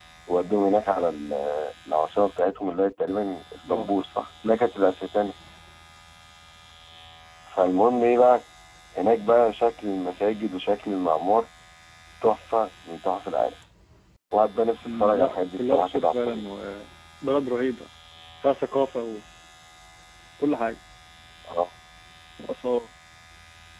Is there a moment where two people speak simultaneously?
Yes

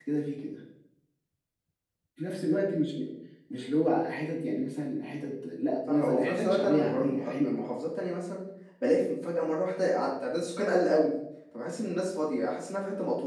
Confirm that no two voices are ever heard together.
No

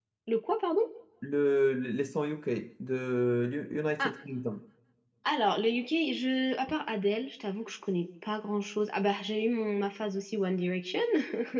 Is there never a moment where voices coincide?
Yes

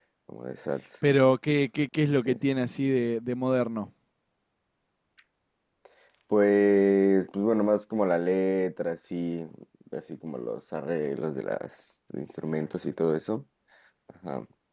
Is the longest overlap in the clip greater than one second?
No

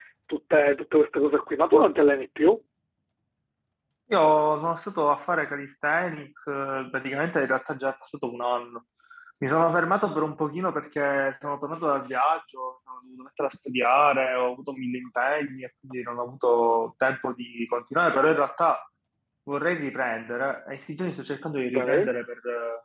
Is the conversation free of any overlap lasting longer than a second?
Yes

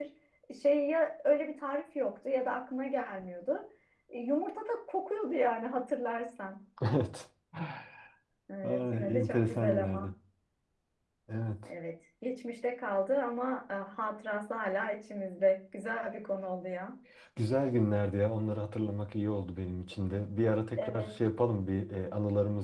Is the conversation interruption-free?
No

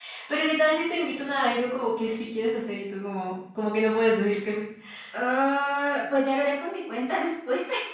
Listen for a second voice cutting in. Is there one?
No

